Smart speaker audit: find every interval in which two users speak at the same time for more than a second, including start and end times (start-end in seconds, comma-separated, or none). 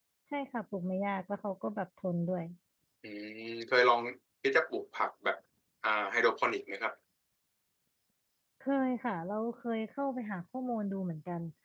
none